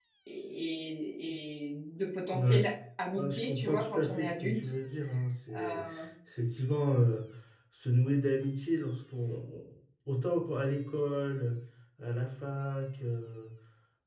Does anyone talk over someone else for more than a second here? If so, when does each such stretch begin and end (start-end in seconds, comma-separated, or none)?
3.2-4.7